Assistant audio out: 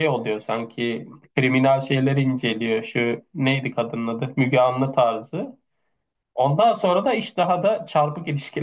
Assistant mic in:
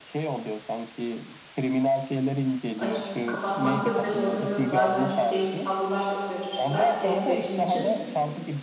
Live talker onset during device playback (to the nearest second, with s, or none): 3 s